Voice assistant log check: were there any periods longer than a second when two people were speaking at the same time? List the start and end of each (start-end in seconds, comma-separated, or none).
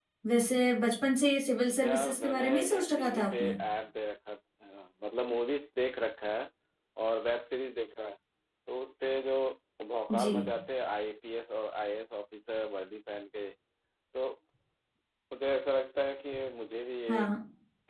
1.8-3.6